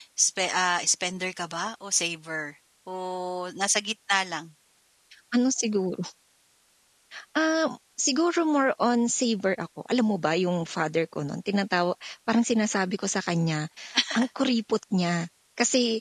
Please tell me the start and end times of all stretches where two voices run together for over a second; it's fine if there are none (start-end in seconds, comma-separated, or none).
none